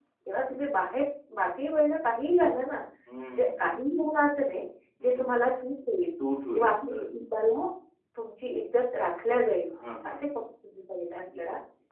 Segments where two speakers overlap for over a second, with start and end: none

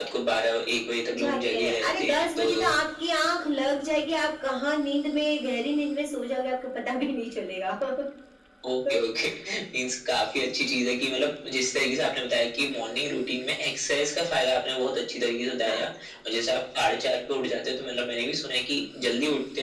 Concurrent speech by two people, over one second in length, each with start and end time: 1.2-2.6

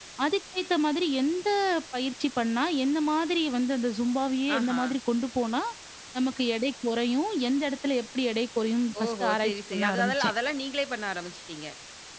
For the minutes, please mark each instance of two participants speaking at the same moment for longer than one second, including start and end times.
9.0-10.3

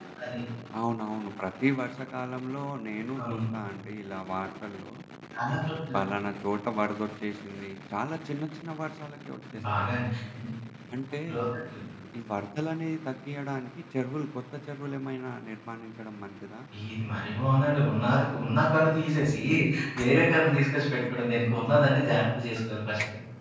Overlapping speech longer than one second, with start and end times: none

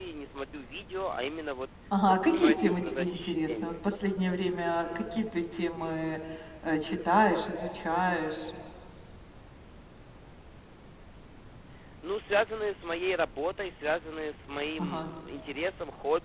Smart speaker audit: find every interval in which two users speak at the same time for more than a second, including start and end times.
2.0-3.7

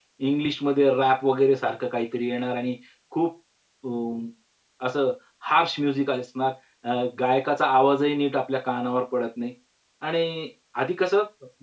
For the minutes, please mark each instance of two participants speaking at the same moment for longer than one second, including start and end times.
none

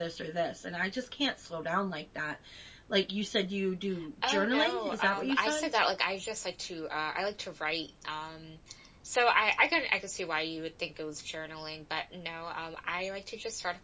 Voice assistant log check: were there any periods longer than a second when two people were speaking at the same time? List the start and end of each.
4.2-5.6

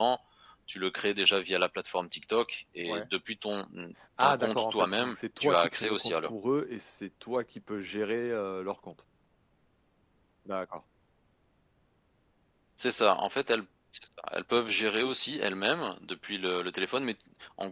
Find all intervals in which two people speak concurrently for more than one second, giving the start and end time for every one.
4.2-6.3

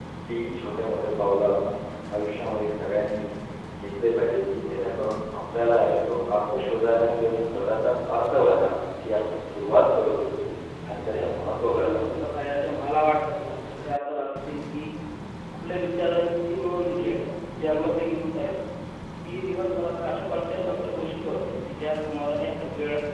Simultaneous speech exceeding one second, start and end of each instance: 10.9-12.2

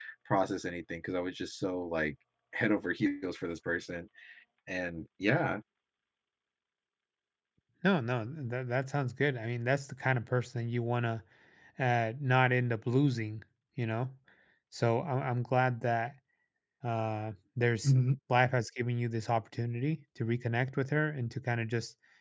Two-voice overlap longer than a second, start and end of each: none

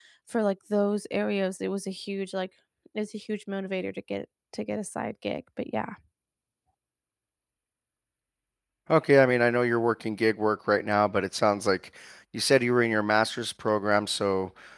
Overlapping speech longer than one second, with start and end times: none

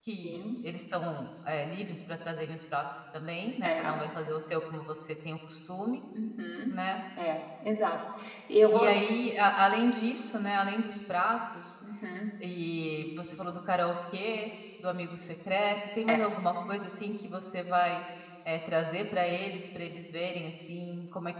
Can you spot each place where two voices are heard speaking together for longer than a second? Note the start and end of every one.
none

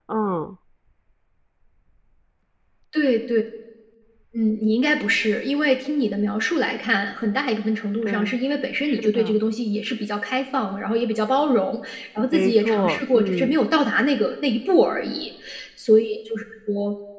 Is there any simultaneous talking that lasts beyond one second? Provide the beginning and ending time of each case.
12.3-13.6

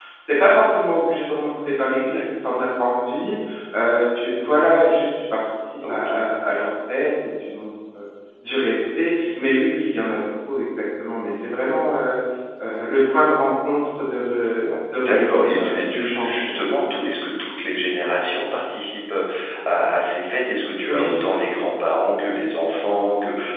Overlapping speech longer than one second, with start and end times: 14.6-16.3

